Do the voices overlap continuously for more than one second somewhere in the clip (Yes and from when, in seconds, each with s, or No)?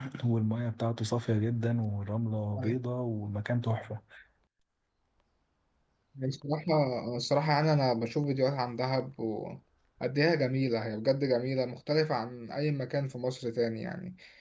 No